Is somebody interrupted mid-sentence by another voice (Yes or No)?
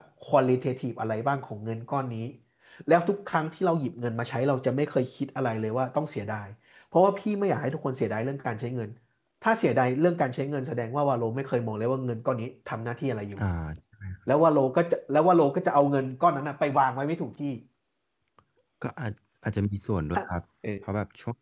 No